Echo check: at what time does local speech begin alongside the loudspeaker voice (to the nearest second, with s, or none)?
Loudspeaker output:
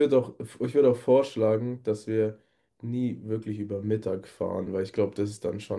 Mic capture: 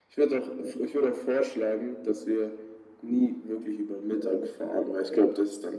none